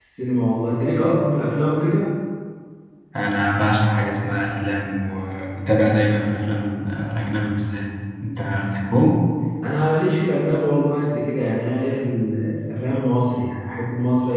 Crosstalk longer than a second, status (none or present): none